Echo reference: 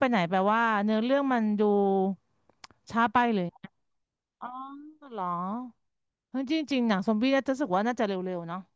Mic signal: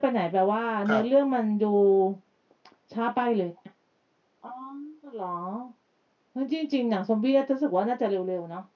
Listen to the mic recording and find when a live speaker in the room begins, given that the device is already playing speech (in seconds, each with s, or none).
0.9 s